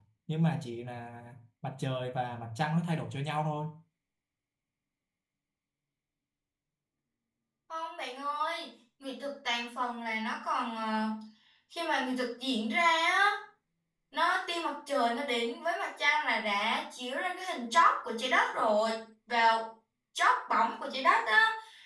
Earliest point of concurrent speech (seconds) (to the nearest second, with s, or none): none